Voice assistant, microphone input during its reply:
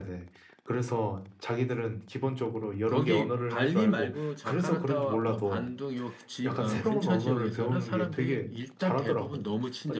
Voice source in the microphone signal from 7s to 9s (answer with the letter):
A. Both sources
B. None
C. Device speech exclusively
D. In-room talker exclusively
A